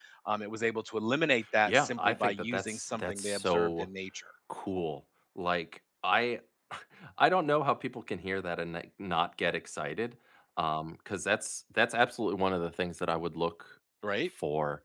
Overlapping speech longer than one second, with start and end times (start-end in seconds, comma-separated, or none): 1.7-3.9